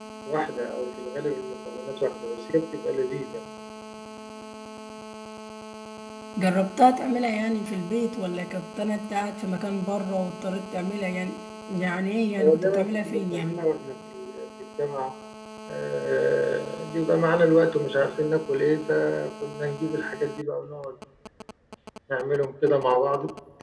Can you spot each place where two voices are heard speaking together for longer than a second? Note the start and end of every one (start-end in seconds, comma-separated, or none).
12.4-13.6